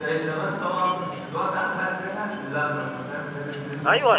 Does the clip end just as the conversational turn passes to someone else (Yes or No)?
Yes